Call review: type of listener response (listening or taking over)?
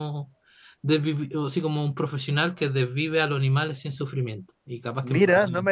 taking over